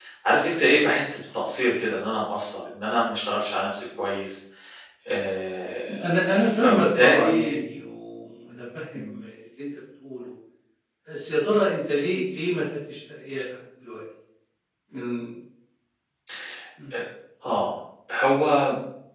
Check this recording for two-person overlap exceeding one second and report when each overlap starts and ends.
6.3-7.6

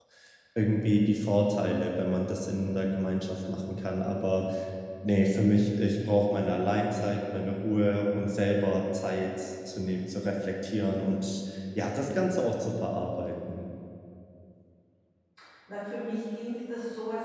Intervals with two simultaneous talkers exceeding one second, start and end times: none

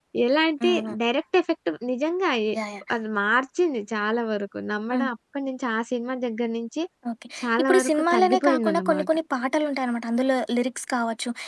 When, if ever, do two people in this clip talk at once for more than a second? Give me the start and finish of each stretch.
7.4-9.1

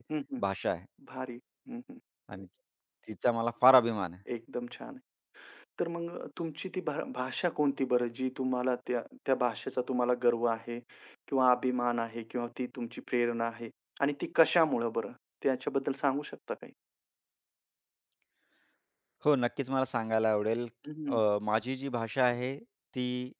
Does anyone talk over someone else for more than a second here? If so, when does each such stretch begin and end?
none

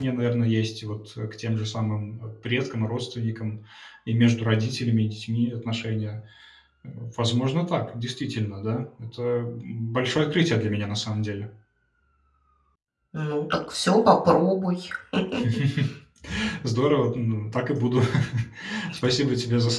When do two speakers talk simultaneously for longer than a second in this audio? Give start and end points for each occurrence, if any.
none

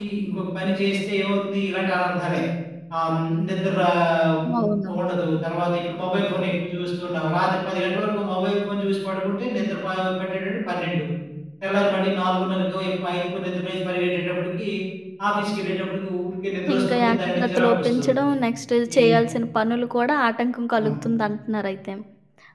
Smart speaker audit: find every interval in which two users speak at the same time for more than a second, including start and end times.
16.7-18.3

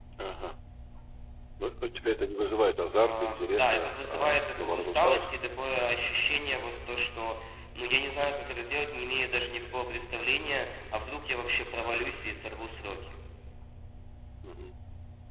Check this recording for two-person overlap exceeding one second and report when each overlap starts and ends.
3.0-5.4

